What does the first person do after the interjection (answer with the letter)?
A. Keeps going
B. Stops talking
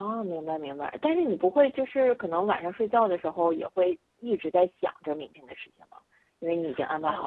B